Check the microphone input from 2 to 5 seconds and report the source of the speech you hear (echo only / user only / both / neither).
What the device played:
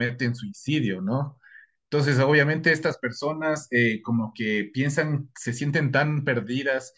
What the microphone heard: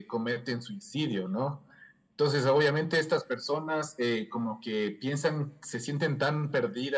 echo only